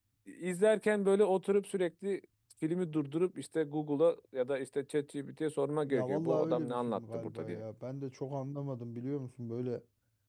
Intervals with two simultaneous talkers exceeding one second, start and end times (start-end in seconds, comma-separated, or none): 5.9-7.6